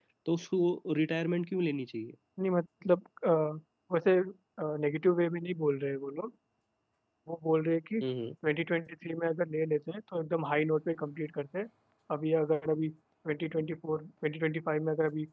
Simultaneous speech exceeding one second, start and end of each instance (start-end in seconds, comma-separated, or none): none